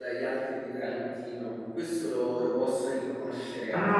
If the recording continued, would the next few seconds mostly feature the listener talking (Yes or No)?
Yes